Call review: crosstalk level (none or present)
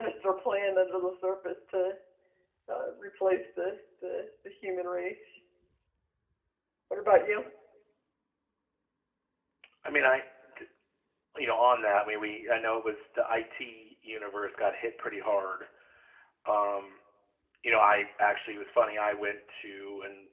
none